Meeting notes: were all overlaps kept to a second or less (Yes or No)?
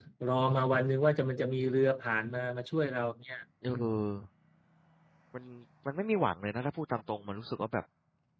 Yes